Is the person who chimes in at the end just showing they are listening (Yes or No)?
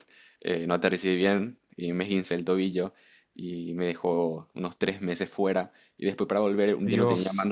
Yes